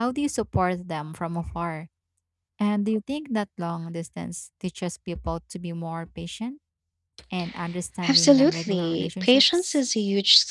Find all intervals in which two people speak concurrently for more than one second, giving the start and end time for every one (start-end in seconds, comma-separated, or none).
8.1-9.8